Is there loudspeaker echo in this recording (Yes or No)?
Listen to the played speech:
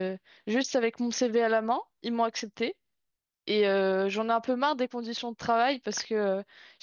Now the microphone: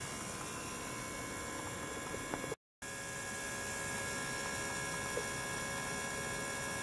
No